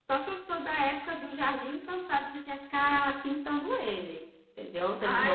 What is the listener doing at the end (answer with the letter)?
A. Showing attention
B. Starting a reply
B